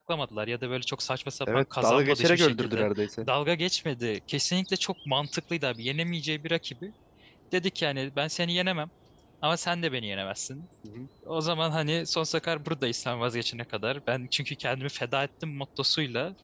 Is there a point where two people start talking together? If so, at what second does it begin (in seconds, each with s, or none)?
1.5 s